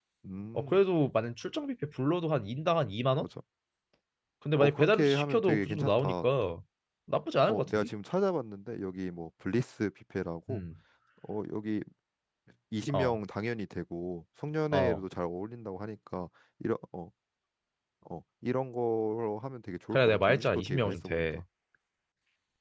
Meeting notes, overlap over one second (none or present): present